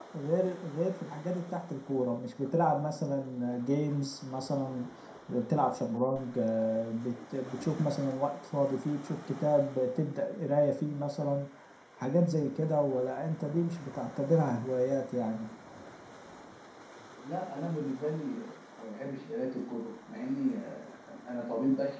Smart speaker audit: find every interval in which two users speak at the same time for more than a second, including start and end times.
none

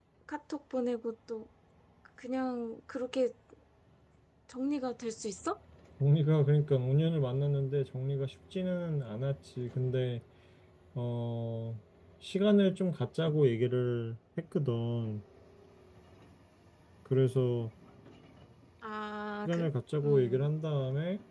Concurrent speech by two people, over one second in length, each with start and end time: none

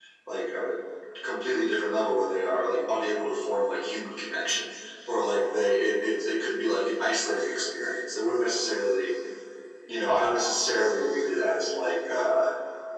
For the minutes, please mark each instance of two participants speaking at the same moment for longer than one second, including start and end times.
none

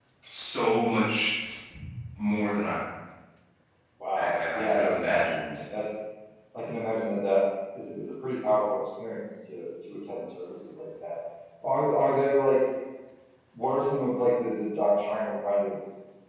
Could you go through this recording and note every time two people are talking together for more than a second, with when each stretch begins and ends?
4.2-5.4

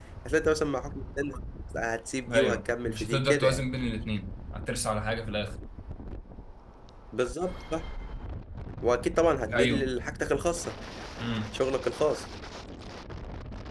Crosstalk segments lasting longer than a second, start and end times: 2.3-3.6

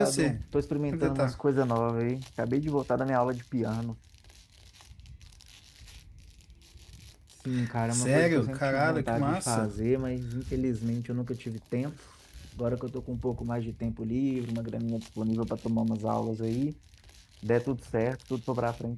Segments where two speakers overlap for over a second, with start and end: 7.9-9.7

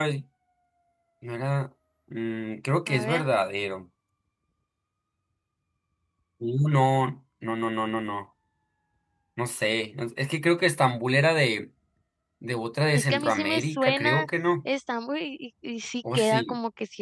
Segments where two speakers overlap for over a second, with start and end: 12.9-14.2

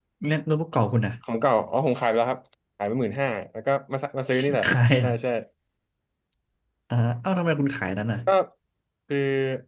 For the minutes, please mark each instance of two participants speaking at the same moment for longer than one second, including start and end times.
none

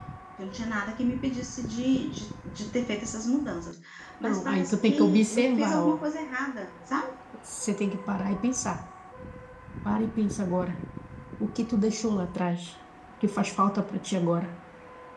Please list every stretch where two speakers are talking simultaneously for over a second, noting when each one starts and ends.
4.2-6.0

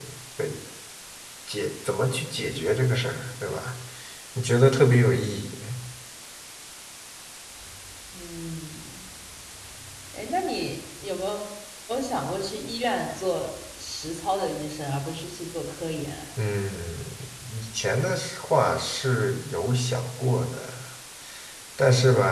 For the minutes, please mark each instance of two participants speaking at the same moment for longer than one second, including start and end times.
none

